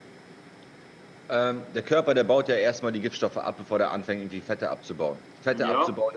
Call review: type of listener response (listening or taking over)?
listening